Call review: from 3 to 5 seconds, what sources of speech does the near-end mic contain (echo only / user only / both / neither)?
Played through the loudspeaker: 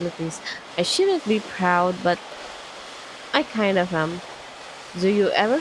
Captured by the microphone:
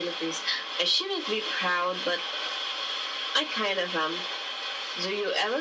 echo only